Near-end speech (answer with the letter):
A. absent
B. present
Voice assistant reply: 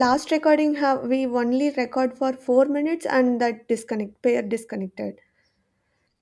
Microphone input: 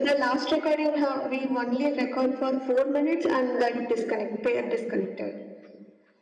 A